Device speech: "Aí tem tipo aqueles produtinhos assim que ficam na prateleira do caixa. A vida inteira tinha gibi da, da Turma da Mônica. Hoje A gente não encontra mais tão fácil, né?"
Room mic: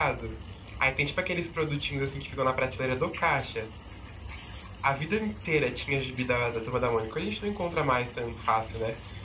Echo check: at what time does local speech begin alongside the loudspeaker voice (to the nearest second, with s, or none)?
none